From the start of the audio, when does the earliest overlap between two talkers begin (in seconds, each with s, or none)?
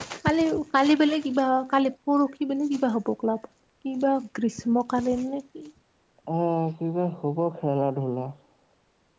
none